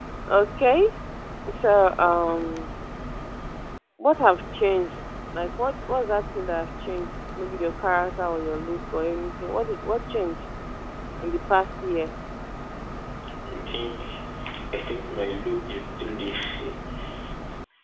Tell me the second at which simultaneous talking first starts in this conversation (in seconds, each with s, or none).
none